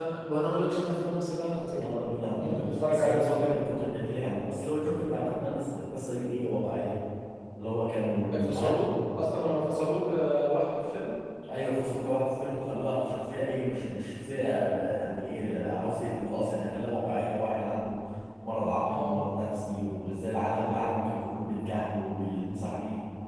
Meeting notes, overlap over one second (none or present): present